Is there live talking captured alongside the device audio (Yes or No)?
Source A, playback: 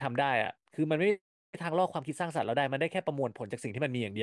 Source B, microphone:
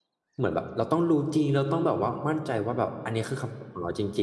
Yes